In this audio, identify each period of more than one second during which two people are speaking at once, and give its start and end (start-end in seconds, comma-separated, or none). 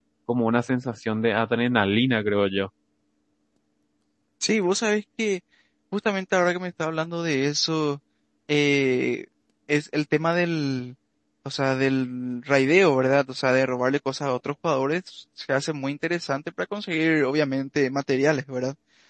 none